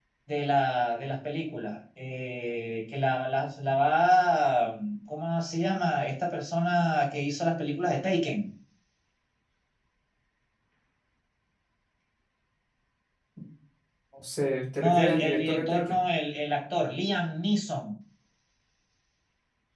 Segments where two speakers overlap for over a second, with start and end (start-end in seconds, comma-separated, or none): 14.8-16.0